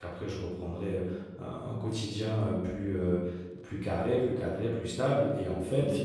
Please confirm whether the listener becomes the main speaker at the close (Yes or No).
No